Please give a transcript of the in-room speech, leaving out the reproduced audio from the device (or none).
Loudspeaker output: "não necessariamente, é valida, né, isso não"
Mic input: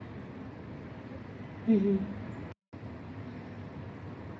uhum,